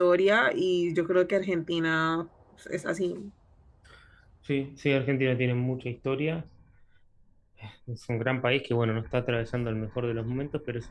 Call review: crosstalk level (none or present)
none